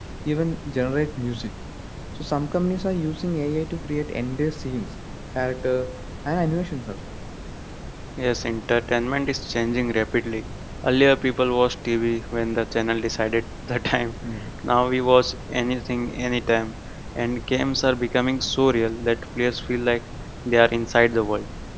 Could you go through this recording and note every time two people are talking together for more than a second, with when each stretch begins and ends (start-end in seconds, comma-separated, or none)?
none